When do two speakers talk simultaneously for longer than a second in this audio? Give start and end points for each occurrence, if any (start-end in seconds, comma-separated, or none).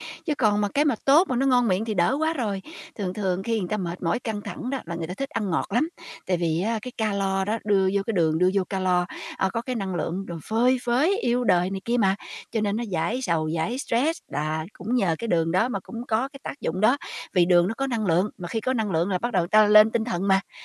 none